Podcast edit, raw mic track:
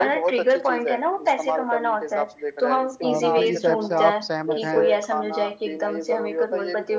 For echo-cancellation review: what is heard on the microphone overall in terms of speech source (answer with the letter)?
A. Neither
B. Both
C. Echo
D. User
B